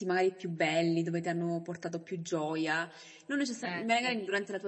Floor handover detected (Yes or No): No